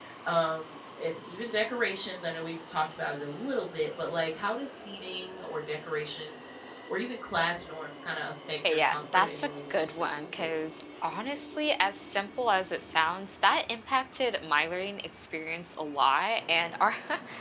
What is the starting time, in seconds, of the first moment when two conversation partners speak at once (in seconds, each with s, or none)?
8.6 s